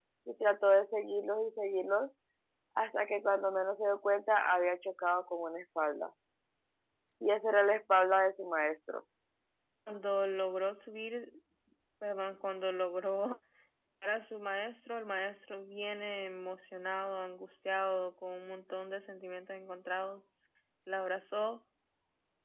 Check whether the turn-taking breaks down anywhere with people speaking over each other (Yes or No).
No